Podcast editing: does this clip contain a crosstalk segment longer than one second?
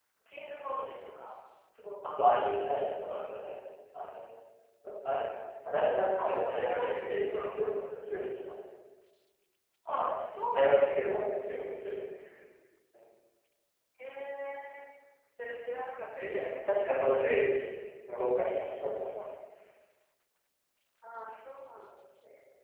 Yes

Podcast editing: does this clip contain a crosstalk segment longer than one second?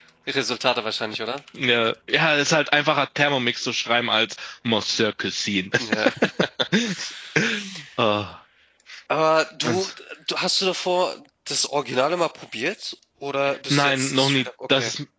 Yes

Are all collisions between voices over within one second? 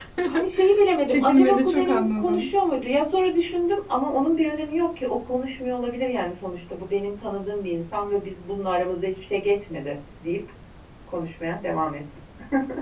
No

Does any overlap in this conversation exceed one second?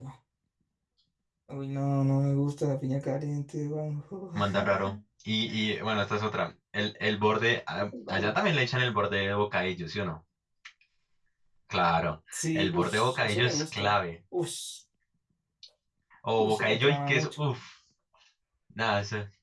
Yes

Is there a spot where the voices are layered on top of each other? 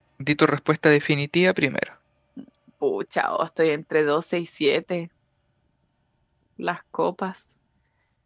No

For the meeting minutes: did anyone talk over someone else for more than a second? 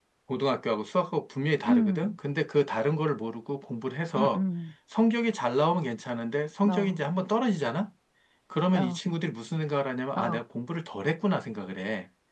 No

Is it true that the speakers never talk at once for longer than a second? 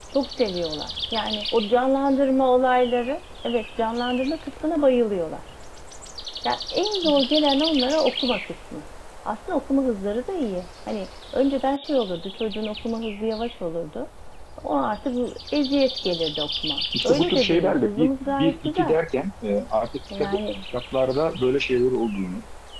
No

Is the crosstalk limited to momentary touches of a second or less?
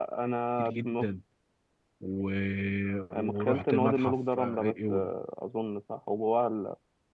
No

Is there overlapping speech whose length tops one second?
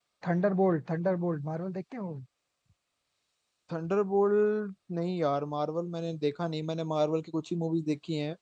No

